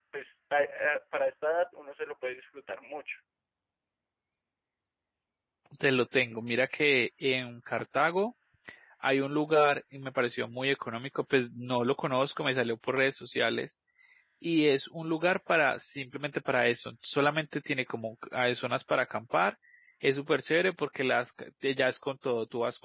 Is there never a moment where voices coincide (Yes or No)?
Yes